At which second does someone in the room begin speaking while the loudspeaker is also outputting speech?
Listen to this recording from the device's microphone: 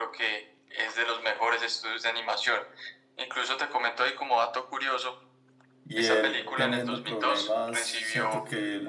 5.8 s

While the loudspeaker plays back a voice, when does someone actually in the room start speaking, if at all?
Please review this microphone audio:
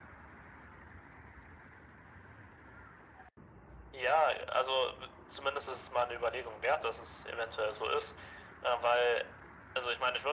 none

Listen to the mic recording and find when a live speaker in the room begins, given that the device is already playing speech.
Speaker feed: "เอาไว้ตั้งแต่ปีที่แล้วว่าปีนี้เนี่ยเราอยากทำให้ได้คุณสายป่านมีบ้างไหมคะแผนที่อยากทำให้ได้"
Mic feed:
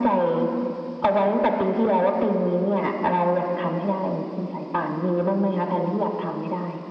none

